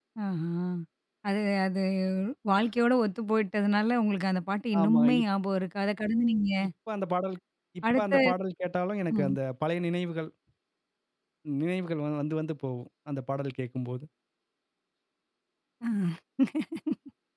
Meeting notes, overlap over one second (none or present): none